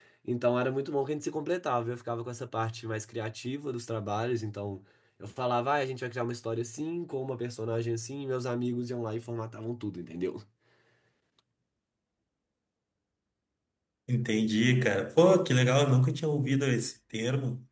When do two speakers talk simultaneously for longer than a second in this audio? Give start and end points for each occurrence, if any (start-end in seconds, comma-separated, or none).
none